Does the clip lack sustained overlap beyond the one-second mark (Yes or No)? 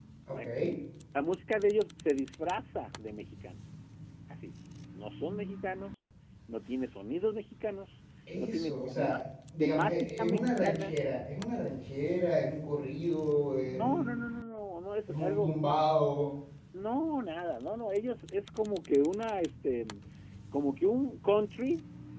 No